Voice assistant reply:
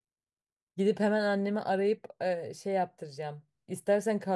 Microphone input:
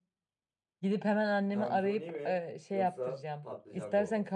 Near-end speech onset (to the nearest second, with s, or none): 1 s